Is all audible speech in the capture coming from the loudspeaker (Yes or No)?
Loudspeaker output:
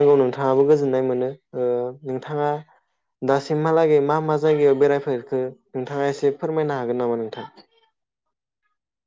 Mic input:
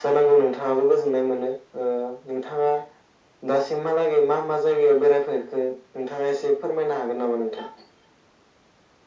Yes